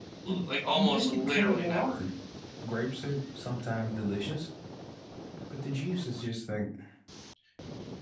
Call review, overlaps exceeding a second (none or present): present